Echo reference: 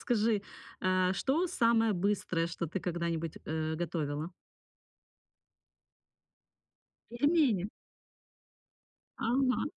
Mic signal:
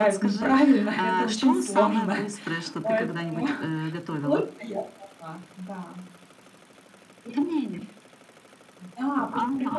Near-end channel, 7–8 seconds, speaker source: echo only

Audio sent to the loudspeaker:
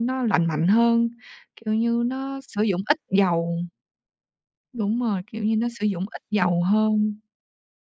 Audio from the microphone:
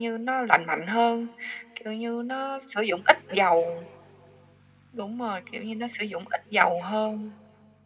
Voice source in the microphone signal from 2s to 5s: echo only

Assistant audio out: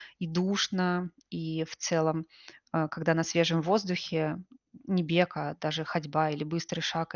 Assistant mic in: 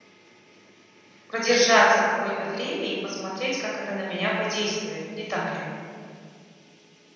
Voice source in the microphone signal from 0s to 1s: neither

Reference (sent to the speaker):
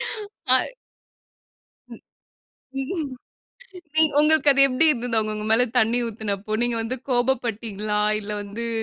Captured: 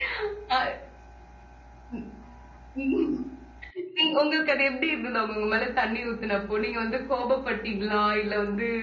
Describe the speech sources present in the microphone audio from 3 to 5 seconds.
echo only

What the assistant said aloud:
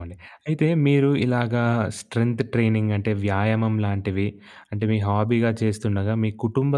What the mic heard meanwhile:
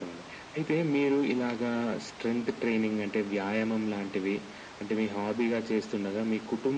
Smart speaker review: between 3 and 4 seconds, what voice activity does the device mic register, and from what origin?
echo only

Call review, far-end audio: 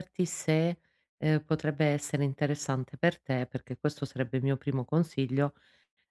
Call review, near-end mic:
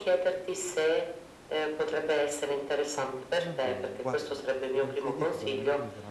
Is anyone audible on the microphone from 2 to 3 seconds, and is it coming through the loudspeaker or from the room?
echo only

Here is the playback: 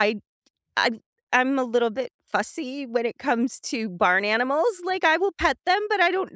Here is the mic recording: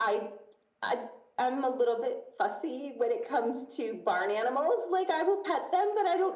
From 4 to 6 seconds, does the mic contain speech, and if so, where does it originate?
echo only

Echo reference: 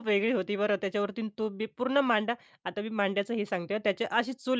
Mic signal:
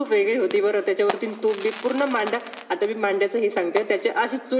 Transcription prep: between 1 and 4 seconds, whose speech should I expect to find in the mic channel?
echo only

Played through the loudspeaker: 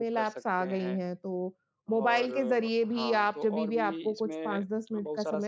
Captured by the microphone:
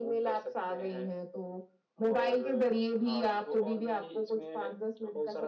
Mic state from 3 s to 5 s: echo only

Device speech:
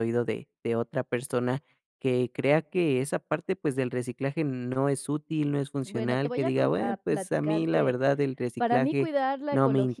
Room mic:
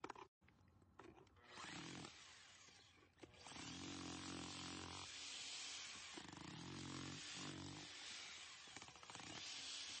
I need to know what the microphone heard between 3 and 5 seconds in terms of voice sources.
neither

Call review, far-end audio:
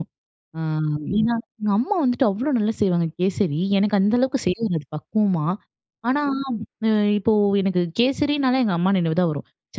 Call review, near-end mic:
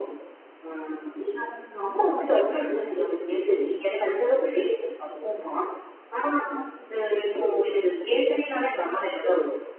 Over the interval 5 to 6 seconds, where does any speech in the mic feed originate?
echo only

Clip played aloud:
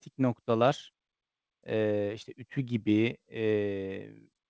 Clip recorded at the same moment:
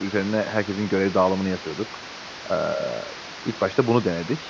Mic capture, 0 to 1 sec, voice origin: user only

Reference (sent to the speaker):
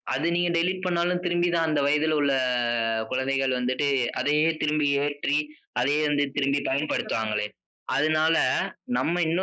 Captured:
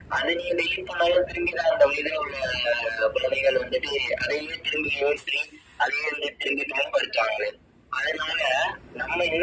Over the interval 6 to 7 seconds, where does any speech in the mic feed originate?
echo only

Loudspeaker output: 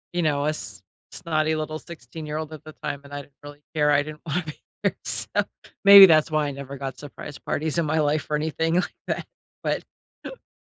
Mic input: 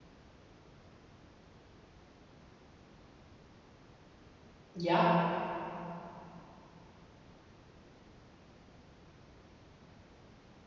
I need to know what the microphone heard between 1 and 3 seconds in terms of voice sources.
neither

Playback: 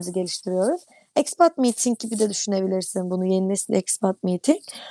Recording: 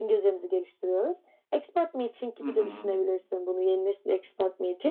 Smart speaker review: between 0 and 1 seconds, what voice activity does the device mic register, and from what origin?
echo only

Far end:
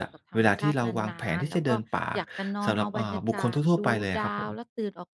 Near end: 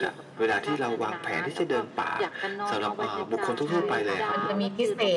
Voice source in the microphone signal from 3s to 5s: both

